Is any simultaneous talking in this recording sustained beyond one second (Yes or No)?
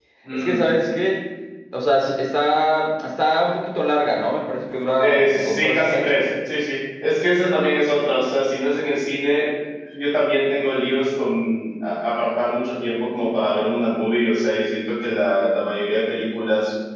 Yes